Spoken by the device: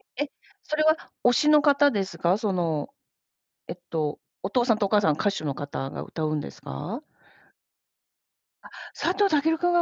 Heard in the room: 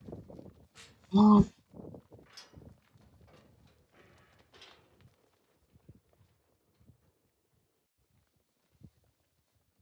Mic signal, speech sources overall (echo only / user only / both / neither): user only